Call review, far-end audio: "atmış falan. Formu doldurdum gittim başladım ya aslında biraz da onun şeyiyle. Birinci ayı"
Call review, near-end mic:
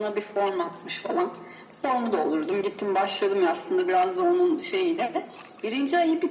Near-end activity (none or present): none